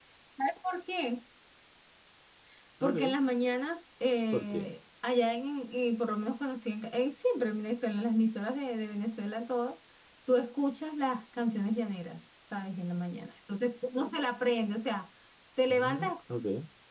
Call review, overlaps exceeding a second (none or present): none